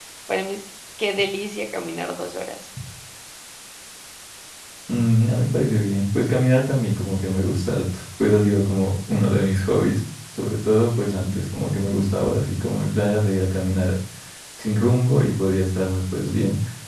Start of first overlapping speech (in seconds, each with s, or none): none